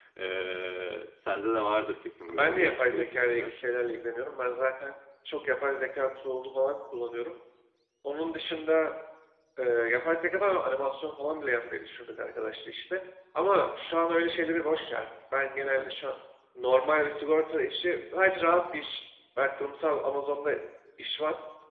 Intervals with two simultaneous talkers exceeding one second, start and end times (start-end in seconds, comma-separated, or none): 2.3-3.6